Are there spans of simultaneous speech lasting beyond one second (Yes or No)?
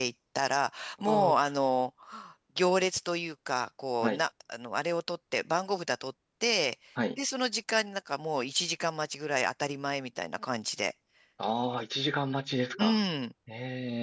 No